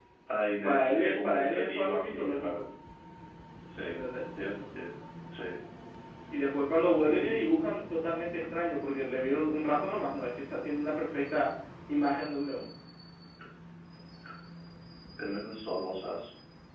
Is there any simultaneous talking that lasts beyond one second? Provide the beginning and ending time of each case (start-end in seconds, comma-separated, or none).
0.6-2.6